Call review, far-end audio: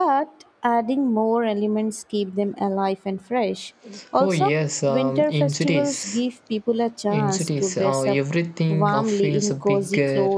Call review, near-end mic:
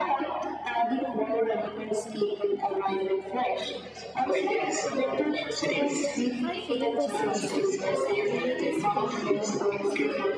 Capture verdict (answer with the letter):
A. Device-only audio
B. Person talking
B